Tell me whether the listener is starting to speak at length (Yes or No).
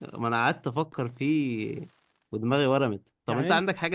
No